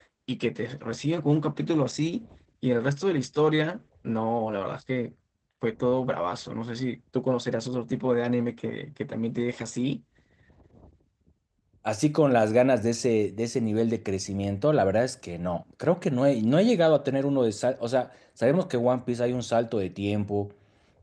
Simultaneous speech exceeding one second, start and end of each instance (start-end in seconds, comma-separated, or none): none